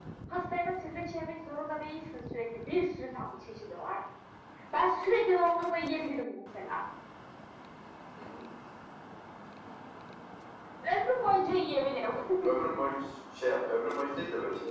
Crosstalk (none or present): none